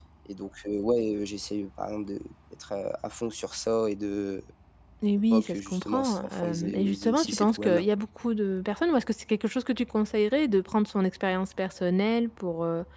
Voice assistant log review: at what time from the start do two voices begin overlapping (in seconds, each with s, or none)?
5.3 s